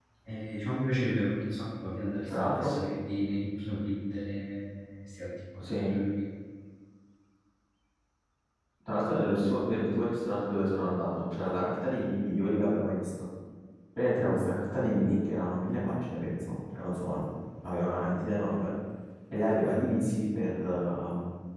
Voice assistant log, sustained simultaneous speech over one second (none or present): none